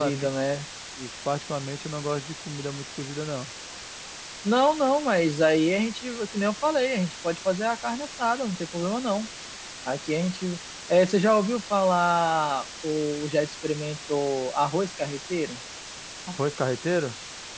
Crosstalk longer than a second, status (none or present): none